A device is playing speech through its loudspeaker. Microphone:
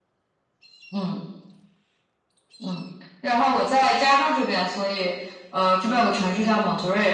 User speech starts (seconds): none

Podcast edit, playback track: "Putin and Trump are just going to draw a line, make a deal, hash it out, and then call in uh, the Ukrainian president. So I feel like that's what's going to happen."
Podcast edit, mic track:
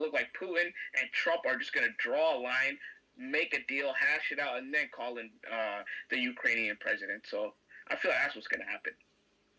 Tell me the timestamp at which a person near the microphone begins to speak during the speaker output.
none

